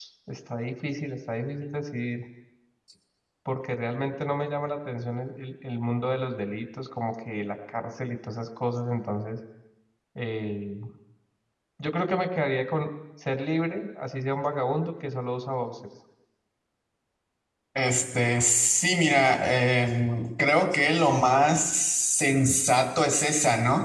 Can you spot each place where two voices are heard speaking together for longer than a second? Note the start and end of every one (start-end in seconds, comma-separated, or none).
none